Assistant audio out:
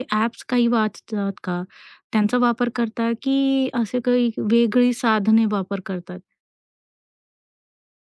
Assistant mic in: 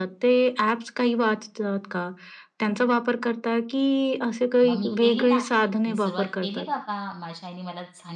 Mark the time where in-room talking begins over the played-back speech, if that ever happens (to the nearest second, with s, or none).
5 s